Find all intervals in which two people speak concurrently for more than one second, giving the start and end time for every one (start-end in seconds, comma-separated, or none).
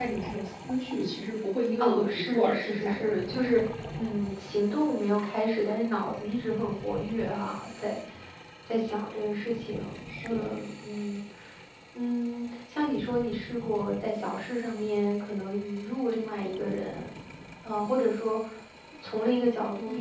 1.8-3.1